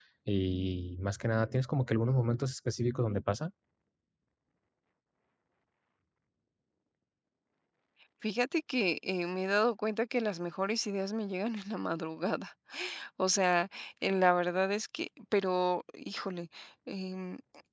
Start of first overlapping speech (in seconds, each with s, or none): none